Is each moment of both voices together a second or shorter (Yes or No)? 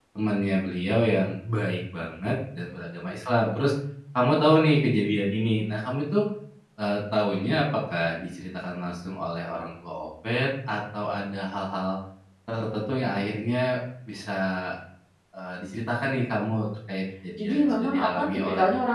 No